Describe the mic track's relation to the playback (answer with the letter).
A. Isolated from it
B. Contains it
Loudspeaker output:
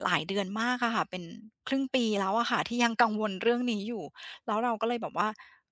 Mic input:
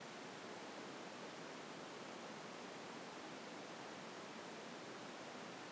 A